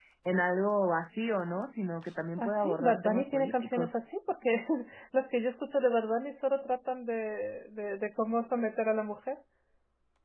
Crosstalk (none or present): present